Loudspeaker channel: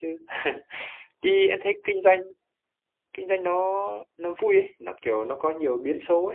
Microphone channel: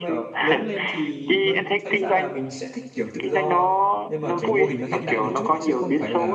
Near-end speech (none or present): present